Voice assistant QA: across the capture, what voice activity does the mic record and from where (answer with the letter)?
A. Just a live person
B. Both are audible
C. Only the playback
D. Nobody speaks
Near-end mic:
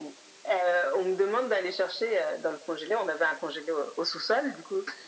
C